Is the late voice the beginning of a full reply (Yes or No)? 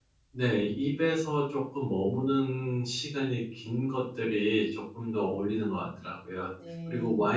No